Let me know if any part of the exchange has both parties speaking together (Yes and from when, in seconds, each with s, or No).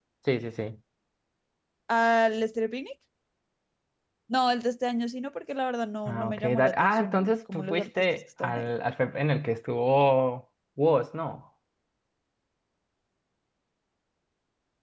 Yes, from 6.1 s